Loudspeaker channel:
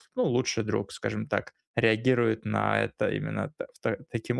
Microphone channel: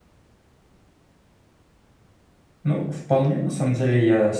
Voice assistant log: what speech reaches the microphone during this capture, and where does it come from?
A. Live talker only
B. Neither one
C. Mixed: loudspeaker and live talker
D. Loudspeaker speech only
A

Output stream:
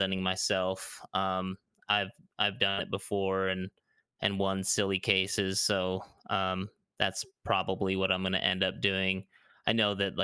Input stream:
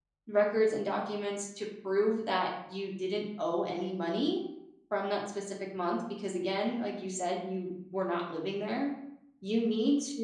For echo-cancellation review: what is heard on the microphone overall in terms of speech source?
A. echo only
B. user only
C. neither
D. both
B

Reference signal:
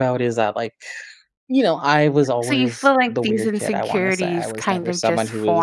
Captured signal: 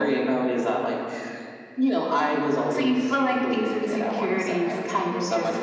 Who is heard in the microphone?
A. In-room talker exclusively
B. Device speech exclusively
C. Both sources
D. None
B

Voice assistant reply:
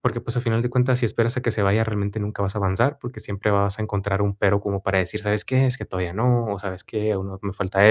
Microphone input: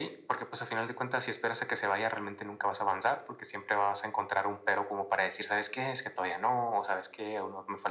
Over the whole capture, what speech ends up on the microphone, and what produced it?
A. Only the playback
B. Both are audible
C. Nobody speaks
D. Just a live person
A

